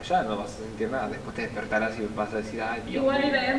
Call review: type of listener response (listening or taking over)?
taking over